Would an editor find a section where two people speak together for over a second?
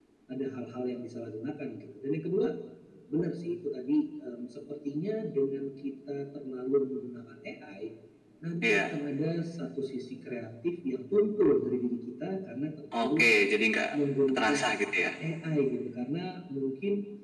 No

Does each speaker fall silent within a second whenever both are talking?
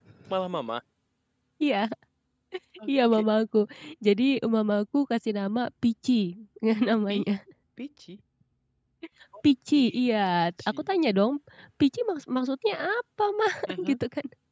Yes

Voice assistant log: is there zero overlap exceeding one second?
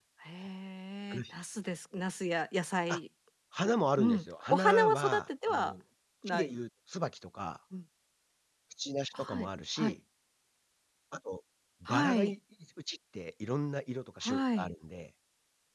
No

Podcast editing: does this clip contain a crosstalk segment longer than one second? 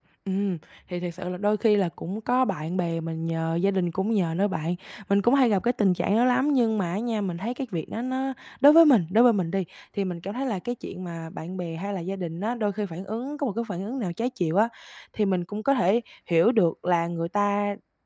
No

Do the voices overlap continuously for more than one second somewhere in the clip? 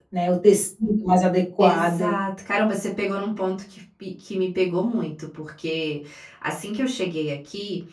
No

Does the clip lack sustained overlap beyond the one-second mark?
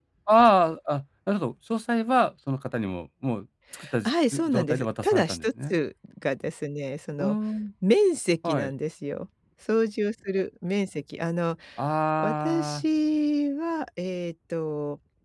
No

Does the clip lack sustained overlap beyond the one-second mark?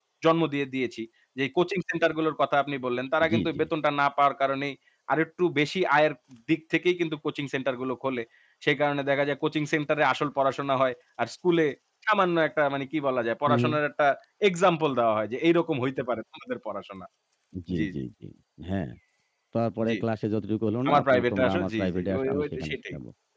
No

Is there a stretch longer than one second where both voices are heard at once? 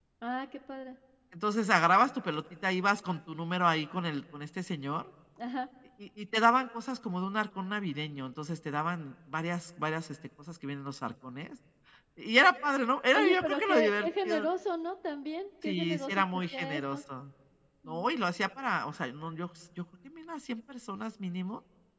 Yes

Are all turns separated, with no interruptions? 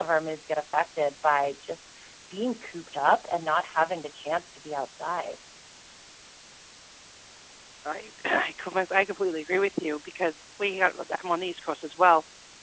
Yes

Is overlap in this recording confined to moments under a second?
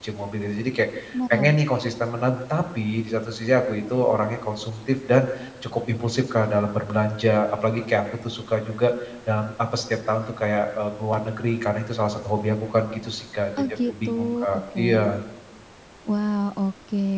No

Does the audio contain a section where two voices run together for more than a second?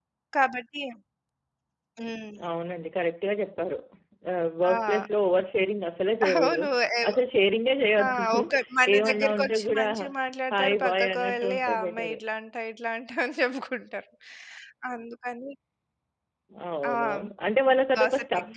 Yes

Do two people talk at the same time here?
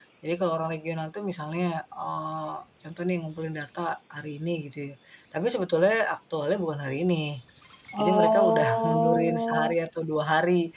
Yes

